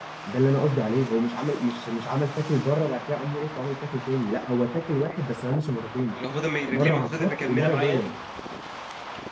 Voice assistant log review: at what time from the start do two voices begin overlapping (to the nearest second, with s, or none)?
7 s